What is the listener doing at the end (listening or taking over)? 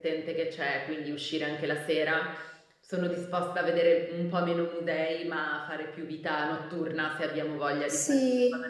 taking over